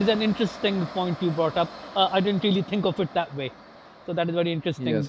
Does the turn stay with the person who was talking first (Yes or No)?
Yes